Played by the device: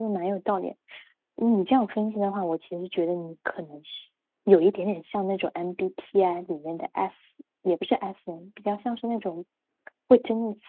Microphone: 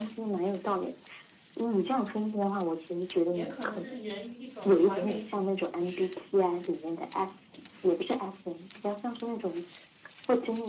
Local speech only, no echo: 也可能这是源于一种完美主义，

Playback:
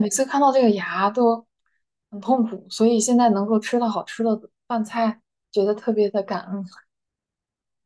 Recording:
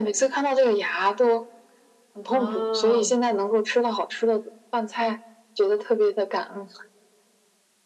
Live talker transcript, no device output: 啊，

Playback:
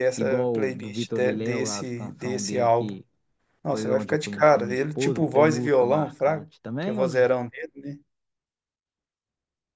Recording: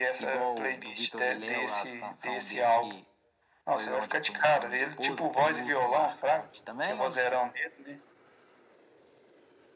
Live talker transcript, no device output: none

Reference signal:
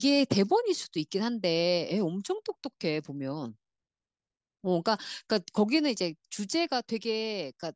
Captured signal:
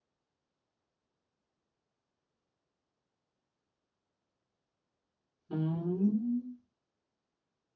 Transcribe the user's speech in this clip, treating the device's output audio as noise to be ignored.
음,

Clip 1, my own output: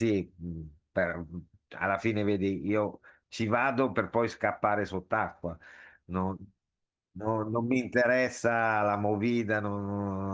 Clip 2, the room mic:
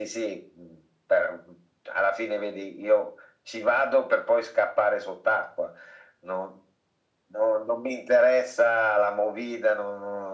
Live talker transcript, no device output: none

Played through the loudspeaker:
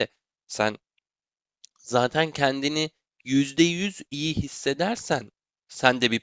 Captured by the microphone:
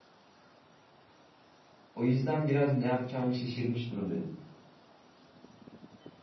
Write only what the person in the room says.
O yüzden biraz ne yapacağımı şaşırmış durumdayım.

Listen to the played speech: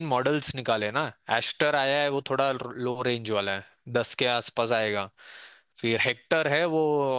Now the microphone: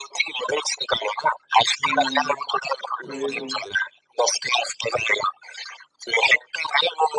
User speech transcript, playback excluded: हम्म वही तो

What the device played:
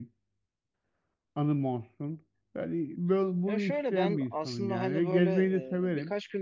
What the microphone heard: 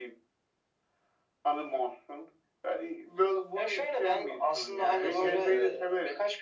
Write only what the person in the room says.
Ya kesinlikle

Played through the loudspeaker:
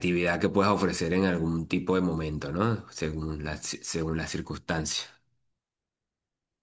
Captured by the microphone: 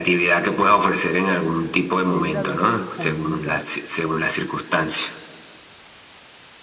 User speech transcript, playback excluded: tiende a vivir en comunidad,

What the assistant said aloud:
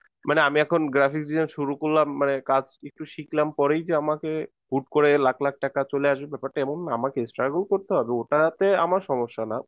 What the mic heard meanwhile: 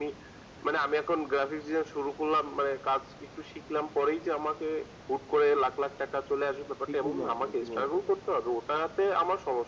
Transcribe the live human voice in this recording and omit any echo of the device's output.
ঠিক বুঝলাম কিনা কি বলো দাদা

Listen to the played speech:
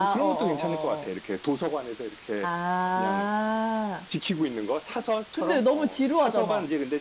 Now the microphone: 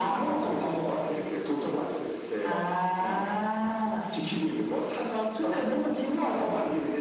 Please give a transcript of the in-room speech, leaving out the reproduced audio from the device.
어,

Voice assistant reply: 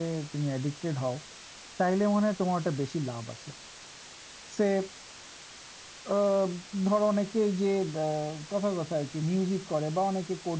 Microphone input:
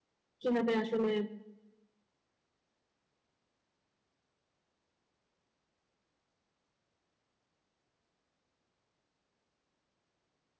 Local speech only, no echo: কিভাবে আসলে

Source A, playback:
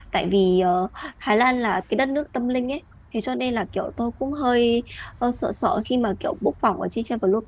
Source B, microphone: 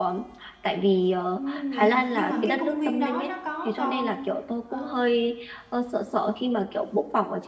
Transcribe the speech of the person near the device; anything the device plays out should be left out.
Ừ, vậy hả? Nhưng mà cái công viên đó nó có con ờ,

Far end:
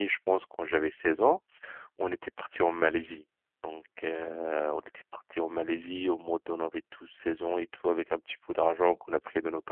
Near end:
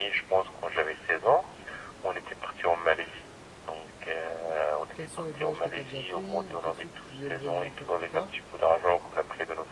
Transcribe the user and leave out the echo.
quels sont les voyages que tu as déjà fait ou quels ceux que tu aimerais bien faire plus tard.

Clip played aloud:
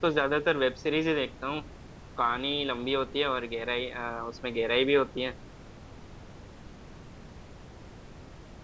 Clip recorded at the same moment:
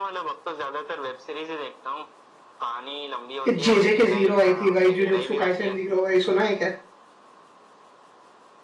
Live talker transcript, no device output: जेजे के जीरो आई थी भाई जुजुत्सु काइसेन जीरो भाई सुना है क्या

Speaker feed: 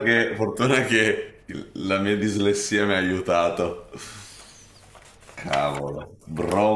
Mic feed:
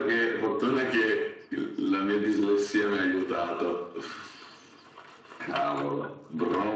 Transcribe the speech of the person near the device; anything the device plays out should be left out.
none

